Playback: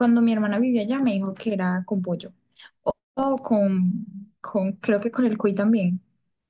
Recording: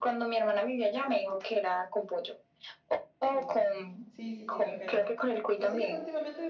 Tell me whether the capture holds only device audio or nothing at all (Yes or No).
No